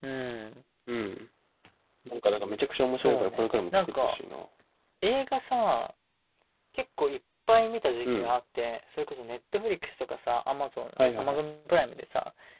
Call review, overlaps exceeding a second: present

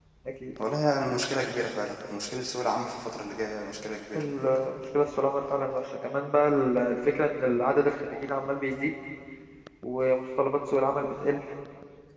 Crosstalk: none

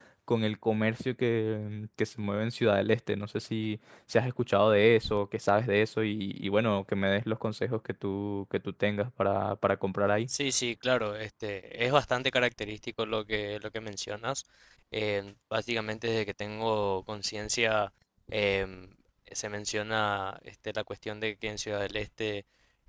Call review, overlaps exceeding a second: none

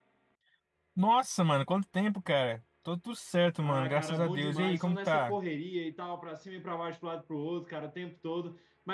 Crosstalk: present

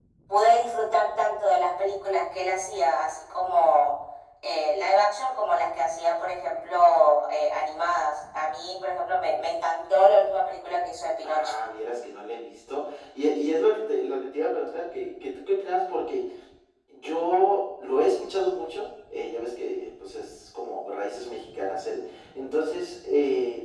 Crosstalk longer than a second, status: none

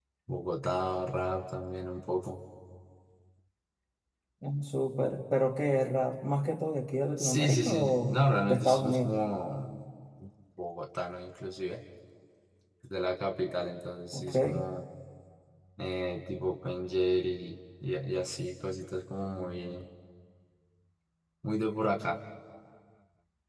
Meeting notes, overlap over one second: present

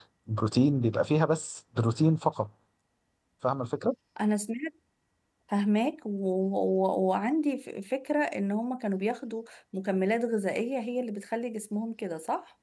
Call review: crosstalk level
none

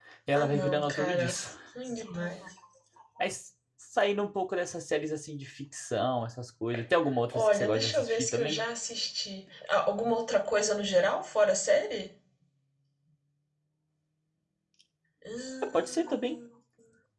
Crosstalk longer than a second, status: present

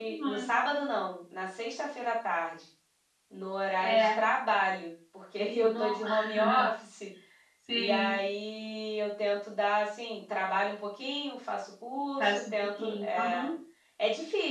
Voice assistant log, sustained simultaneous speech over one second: present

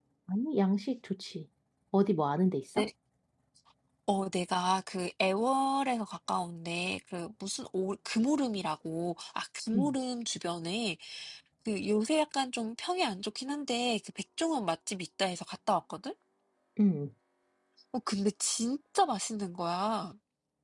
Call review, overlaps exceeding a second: none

